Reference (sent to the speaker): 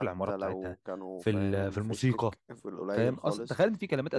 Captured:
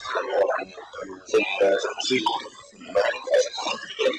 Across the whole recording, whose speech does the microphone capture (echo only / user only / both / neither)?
echo only